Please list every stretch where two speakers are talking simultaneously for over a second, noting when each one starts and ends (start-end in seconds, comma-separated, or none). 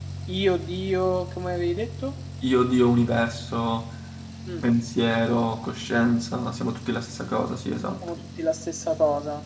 none